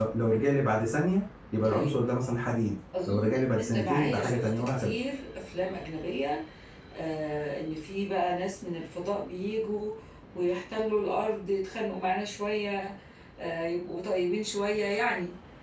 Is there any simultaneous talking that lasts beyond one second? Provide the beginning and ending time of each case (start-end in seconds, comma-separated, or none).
3.1-5.0